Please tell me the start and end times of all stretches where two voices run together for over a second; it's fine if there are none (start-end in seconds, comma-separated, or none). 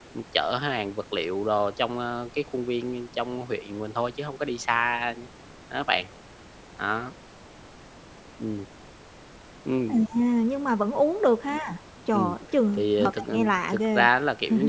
12.7-14.1